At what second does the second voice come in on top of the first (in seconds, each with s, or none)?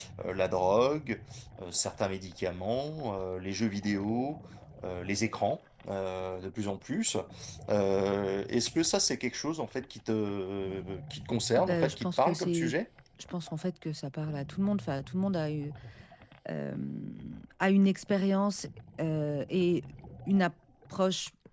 11.5 s